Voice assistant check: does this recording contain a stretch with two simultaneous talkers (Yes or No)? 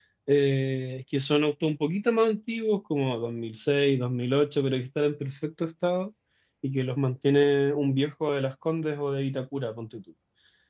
No